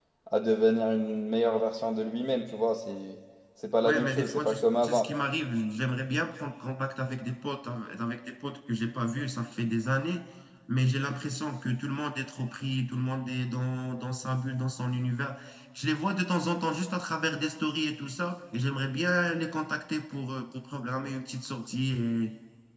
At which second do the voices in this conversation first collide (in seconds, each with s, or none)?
3.8 s